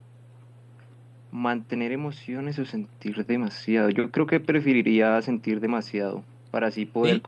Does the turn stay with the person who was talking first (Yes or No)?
Yes